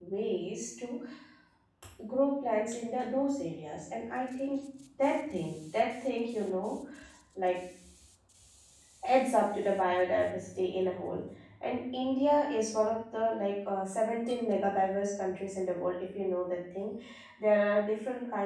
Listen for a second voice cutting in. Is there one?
No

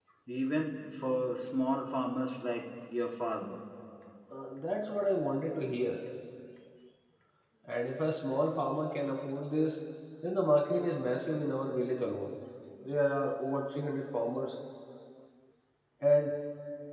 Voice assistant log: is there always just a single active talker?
Yes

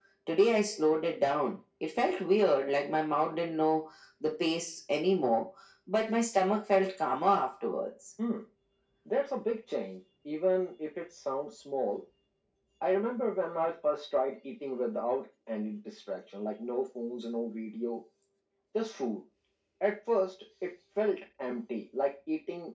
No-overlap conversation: Yes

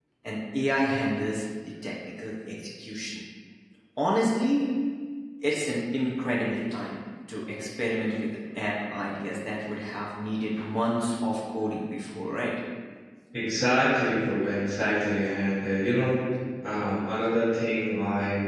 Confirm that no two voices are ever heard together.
Yes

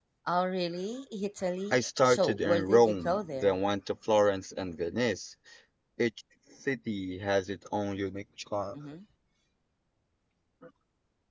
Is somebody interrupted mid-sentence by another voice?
Yes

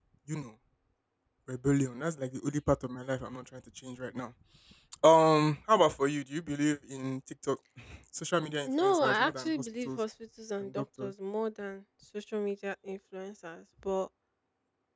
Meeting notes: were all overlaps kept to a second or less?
No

